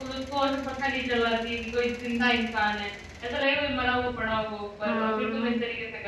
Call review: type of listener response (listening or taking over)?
listening